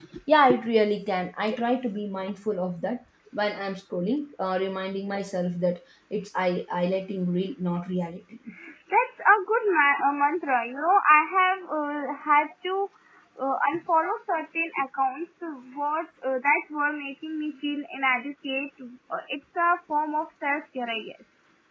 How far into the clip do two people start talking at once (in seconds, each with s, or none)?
none